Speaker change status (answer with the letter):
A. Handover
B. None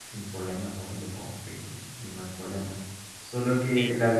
B